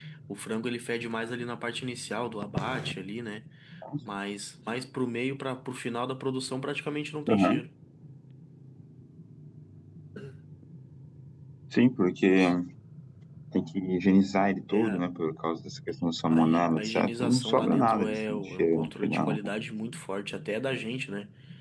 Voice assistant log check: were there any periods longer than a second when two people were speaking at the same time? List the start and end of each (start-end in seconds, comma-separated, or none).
16.3-19.4